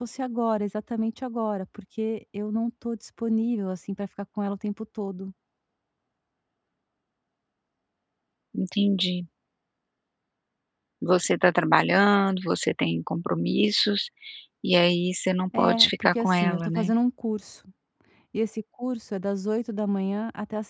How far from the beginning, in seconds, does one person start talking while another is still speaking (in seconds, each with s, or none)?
15.5 s